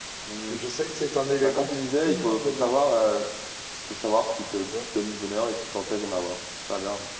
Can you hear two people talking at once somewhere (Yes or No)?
Yes